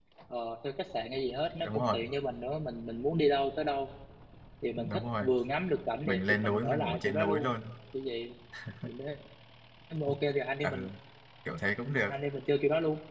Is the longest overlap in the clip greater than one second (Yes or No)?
Yes